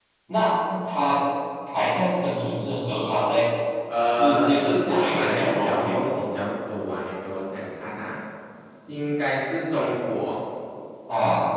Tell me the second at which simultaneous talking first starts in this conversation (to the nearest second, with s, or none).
4 s